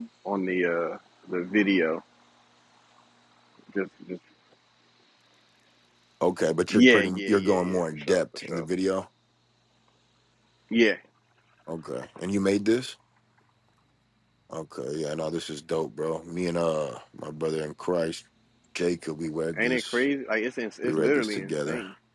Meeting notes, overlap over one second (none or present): present